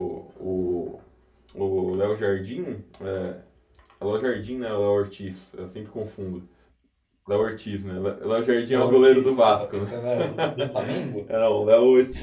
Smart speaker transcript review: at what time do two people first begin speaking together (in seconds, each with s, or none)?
8.7 s